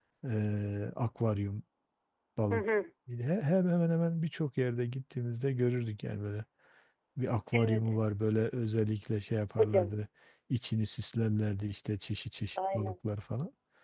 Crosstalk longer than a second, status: none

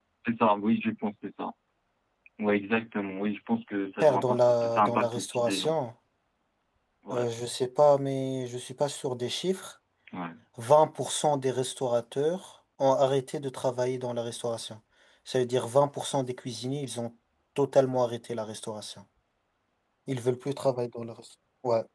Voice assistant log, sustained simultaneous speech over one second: present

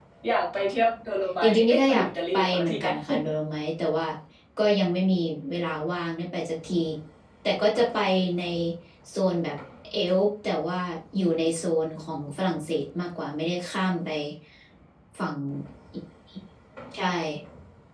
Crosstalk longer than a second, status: present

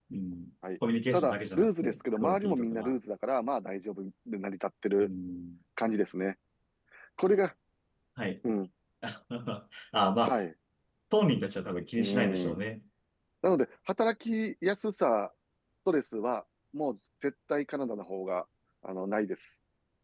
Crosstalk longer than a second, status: present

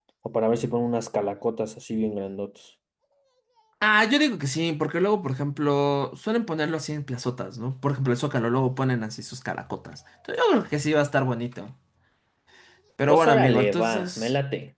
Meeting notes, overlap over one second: present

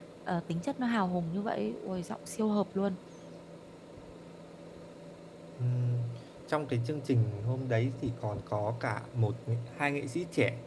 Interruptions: none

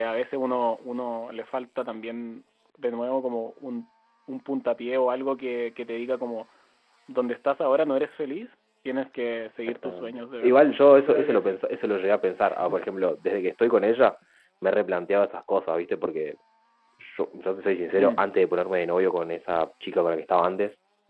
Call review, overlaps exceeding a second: present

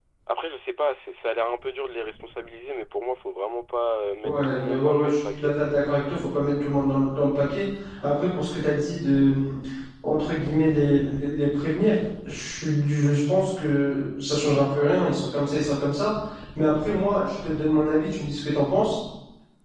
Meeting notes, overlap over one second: present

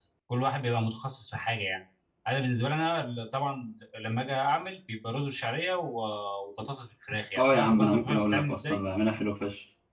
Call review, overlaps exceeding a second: present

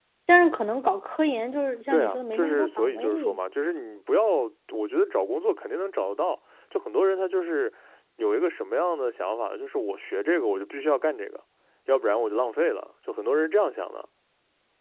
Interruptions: present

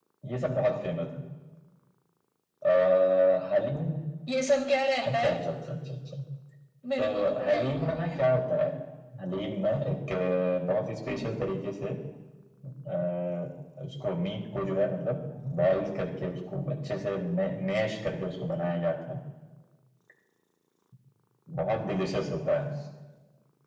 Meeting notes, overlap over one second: present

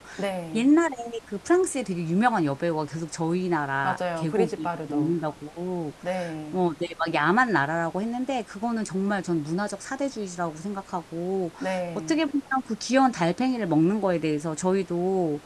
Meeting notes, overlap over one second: present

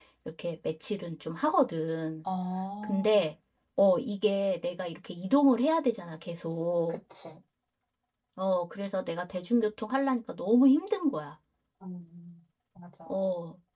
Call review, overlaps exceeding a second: none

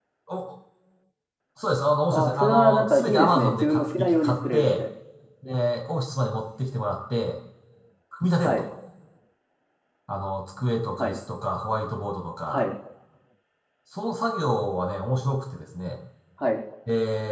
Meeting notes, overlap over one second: present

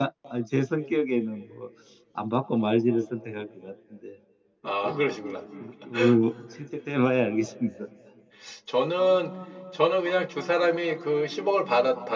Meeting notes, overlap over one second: none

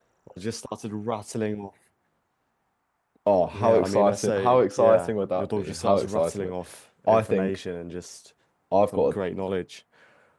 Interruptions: present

